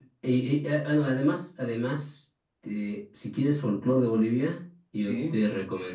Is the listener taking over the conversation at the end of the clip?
No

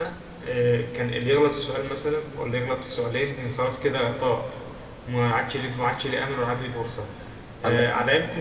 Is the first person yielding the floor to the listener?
No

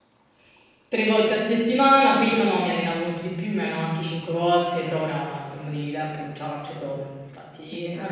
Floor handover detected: No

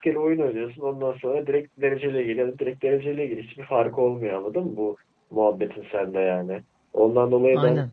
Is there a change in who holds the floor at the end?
No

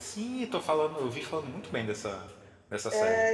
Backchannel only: No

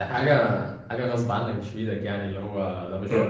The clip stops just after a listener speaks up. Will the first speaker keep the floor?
No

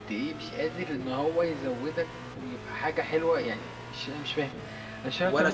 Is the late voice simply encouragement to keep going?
No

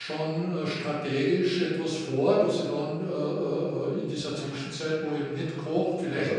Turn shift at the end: No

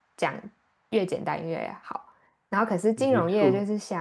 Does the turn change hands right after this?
No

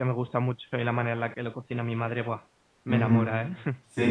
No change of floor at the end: No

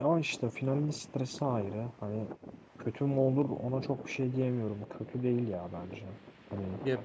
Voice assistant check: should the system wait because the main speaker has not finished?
No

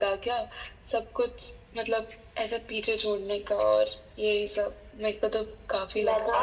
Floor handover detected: Yes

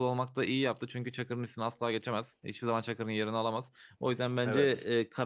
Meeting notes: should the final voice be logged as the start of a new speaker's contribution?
No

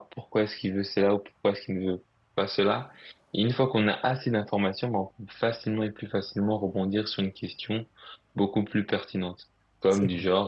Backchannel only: Yes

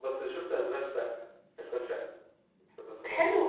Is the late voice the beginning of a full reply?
Yes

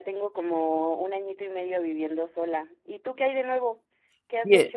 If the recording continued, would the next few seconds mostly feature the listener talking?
Yes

